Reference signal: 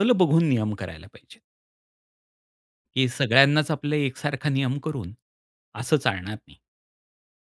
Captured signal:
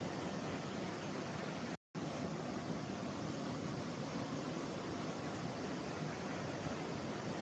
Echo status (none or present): none